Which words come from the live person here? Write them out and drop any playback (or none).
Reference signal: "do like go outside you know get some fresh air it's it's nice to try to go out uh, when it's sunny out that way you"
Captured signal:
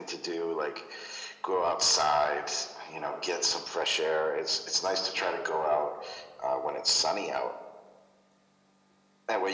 none